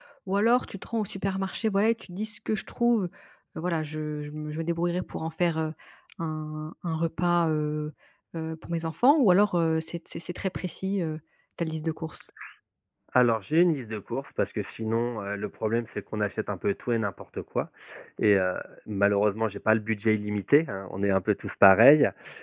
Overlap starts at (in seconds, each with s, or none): none